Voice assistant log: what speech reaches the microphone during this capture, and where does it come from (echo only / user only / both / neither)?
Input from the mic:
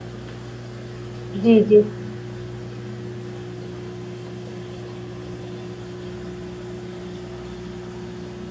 user only